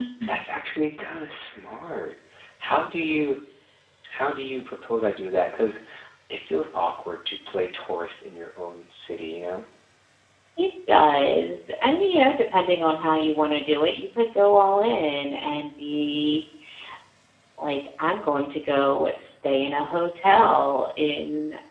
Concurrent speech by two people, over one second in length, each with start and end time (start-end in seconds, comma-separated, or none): none